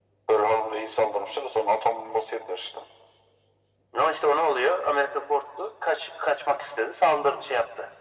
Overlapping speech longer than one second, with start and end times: none

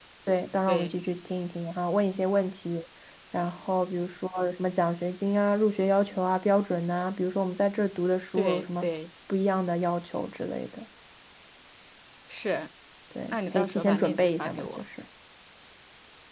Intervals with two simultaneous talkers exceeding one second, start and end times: 13.2-14.8

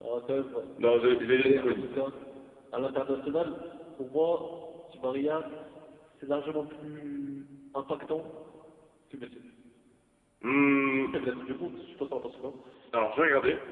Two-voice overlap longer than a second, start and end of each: none

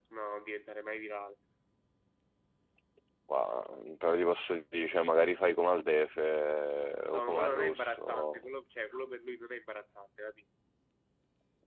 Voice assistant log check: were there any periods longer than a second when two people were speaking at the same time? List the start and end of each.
7.1-8.4

